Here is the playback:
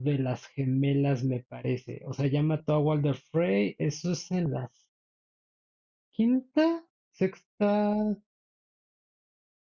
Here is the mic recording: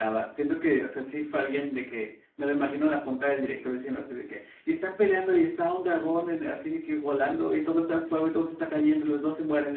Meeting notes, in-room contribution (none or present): present